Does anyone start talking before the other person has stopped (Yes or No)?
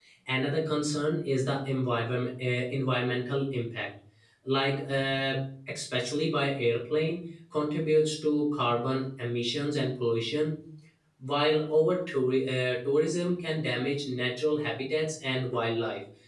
No